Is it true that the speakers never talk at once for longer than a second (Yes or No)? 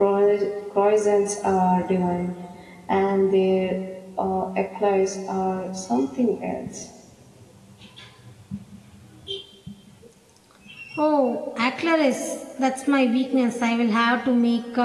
Yes